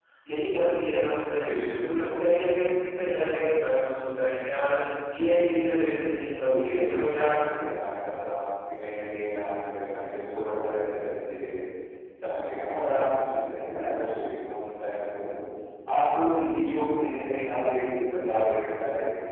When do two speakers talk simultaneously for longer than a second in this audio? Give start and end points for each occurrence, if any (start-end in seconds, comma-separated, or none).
6.4-8.3